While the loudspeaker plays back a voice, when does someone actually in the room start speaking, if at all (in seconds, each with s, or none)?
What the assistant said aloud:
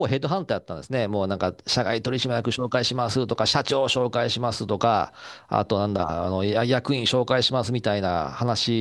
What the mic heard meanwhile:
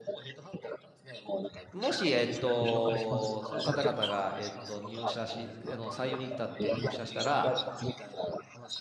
1.7 s